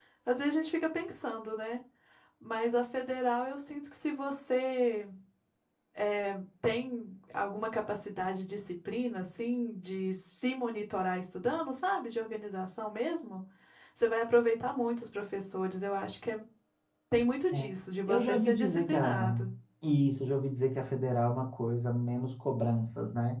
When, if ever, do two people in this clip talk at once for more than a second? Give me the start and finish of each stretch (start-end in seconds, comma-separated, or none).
18.1-19.4